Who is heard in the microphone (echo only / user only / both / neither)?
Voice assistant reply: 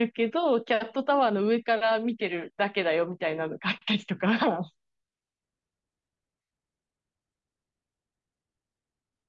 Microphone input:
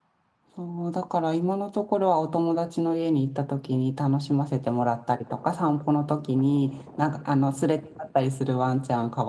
user only